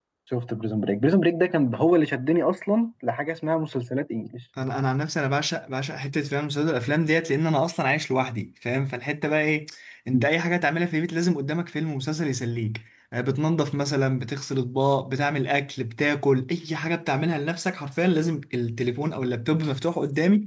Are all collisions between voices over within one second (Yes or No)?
Yes